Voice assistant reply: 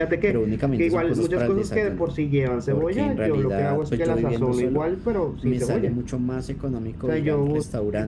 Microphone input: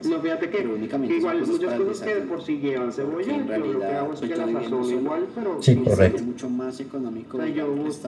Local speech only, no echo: Sí, correcto.

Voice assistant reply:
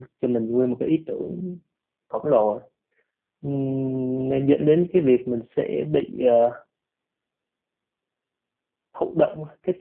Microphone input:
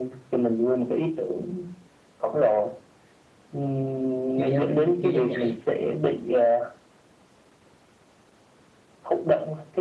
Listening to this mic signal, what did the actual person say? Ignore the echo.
chưa dám chưa dám nhảy

